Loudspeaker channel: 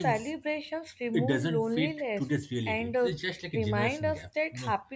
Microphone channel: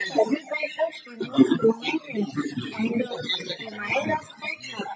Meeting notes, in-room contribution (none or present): none